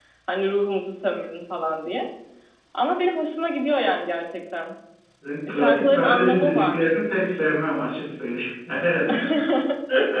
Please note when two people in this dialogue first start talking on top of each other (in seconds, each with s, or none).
5.5 s